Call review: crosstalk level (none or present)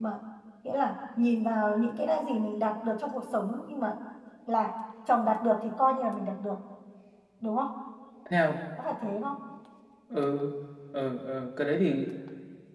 none